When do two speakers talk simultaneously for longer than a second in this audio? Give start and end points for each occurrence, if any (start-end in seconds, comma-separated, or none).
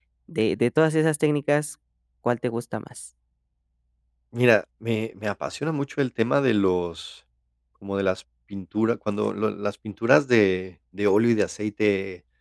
none